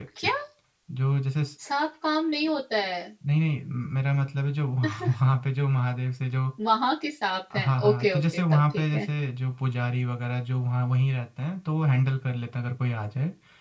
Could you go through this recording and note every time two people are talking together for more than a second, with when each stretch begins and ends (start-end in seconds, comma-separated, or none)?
7.5-9.1